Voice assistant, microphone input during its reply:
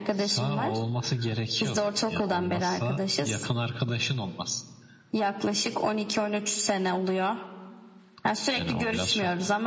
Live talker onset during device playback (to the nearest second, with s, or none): none